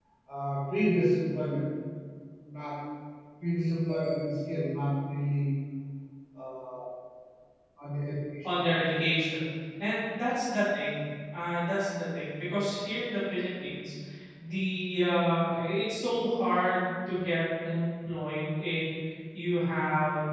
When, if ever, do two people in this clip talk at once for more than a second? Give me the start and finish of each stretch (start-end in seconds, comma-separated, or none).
none